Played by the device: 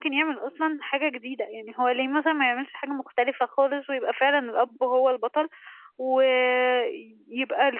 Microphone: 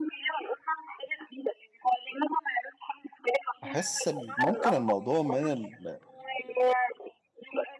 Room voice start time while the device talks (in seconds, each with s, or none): 3.6 s